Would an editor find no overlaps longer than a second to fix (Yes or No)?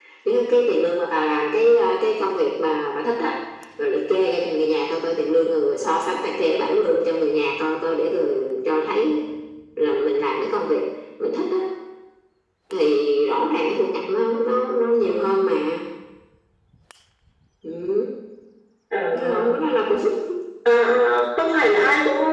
Yes